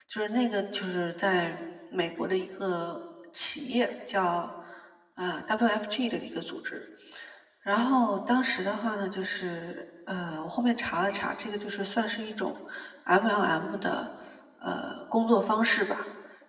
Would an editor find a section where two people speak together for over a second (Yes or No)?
No